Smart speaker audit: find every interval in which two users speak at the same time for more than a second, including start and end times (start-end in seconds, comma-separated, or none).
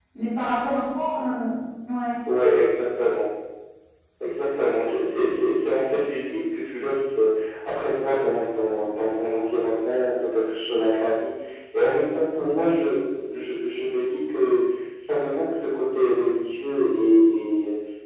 none